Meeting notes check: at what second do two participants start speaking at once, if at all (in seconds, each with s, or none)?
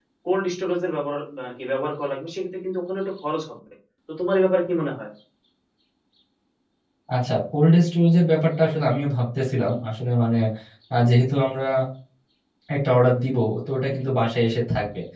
none